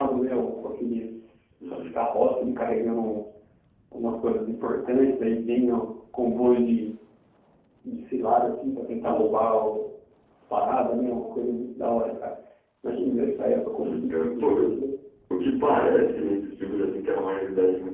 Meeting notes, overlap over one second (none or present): present